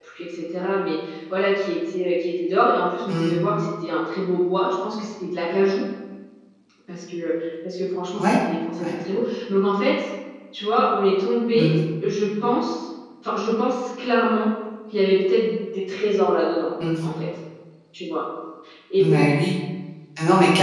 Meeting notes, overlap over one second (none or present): none